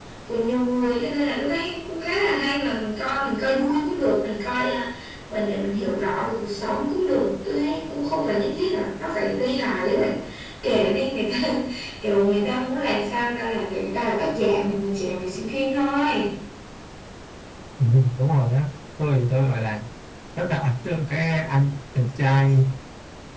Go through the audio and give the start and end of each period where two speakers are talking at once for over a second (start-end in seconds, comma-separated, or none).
none